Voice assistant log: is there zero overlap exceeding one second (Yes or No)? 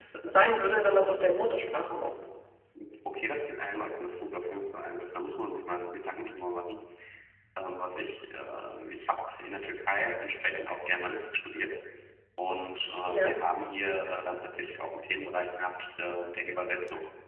Yes